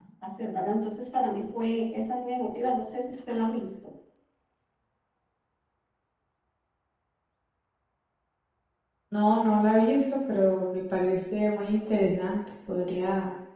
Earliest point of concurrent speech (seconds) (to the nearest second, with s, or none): none